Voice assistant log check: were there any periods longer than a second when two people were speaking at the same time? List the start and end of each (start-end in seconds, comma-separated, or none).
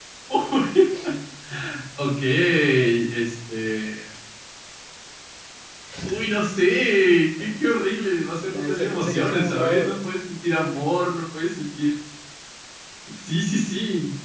8.5-10.1